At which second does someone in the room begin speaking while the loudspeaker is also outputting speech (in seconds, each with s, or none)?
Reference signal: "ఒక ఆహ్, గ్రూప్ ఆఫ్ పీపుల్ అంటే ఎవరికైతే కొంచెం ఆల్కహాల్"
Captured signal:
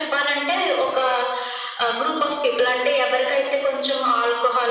none